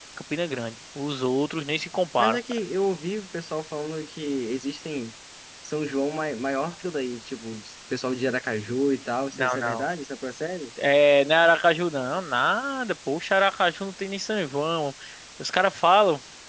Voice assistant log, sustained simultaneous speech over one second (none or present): none